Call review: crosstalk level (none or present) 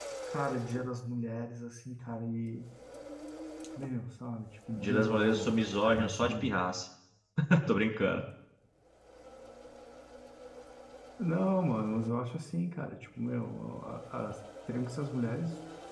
present